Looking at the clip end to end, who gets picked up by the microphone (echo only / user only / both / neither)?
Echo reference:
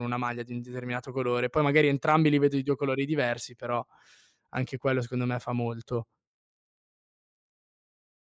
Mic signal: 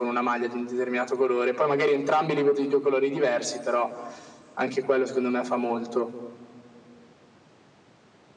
echo only